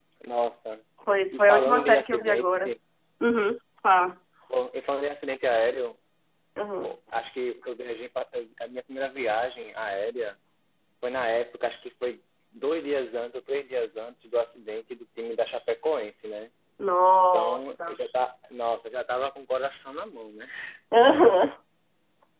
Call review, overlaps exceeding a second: present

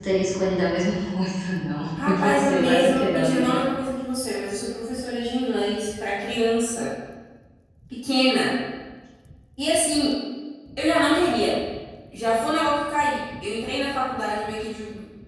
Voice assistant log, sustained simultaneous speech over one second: present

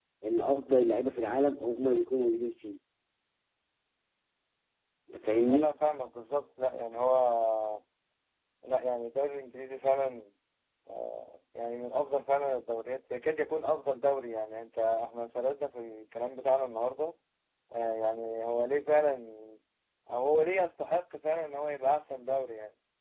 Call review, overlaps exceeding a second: none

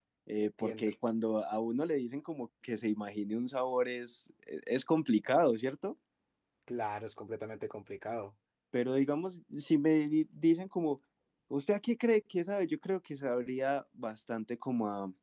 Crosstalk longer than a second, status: none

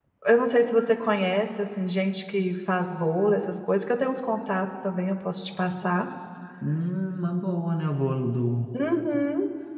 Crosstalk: none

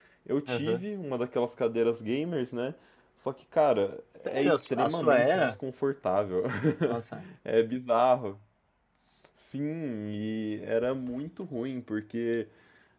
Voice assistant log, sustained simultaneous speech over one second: present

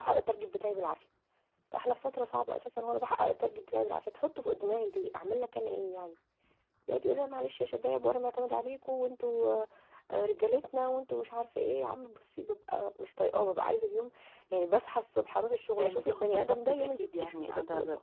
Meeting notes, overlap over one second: present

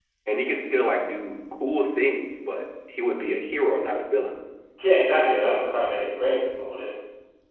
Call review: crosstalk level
none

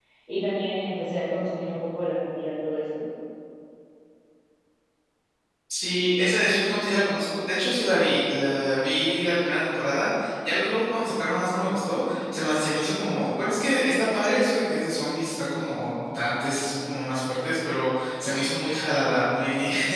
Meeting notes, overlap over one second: none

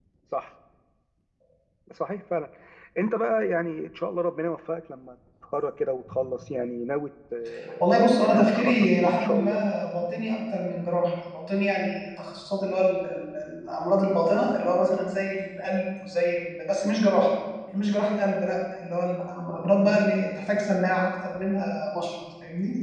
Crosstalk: present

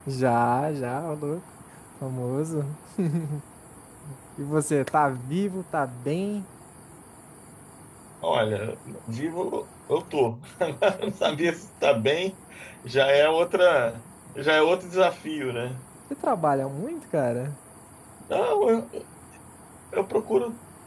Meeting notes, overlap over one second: none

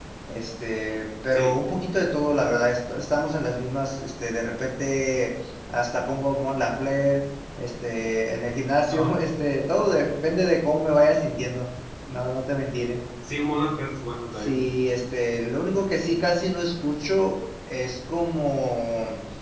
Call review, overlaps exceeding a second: none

